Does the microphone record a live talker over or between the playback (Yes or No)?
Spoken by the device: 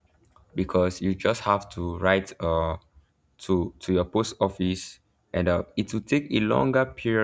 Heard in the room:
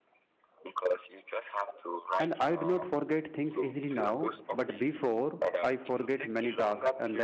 Yes